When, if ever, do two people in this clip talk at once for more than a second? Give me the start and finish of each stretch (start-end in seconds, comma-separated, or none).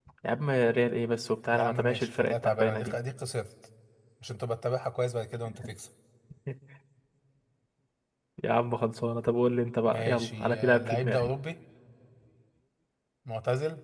1.5-2.9, 9.9-11.3